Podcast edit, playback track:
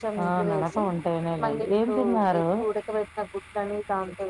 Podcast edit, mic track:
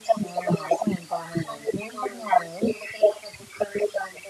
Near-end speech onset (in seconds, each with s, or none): none